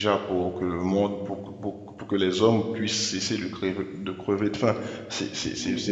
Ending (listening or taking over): listening